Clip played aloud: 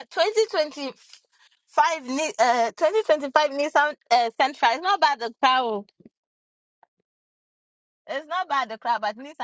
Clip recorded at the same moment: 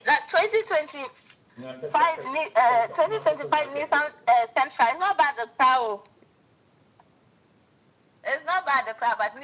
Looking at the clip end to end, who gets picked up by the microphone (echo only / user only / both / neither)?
both